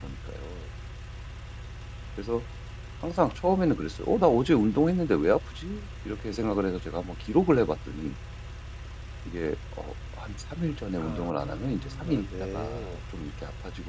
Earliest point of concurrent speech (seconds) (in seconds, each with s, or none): 11.0 s